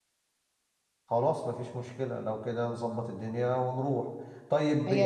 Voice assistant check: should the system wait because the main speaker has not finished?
Yes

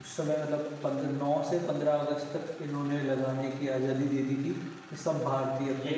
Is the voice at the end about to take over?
No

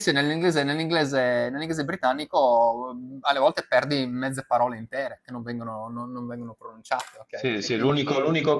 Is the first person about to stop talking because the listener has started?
Yes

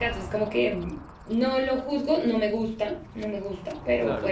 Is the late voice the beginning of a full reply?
Yes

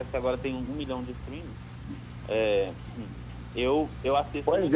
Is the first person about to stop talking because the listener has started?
Yes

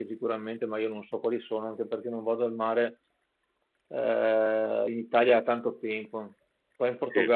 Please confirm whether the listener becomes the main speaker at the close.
No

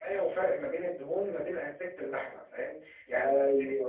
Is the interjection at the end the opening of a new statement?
No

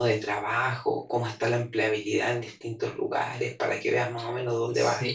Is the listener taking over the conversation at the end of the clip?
Yes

